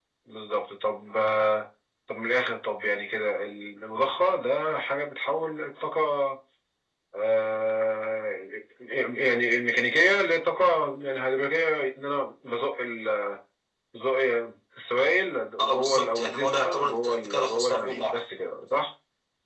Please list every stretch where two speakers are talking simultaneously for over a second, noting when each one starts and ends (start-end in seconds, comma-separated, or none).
15.6-18.2